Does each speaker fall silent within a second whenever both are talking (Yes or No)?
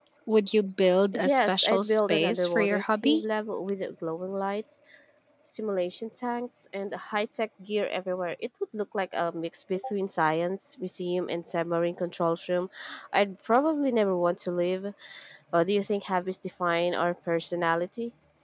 No